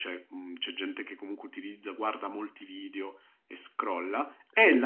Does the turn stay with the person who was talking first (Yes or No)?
Yes